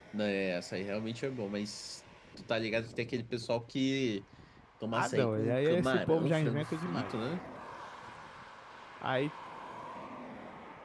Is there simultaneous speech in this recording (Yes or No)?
Yes